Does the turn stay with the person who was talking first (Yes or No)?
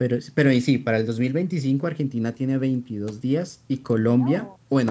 Yes